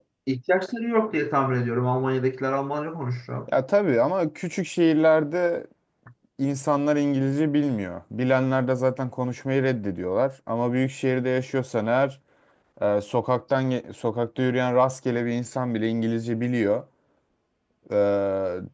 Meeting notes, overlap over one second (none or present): none